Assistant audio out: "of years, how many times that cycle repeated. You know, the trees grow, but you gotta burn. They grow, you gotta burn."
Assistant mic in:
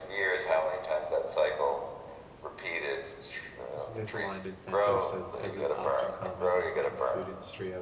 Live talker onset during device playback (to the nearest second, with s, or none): 4 s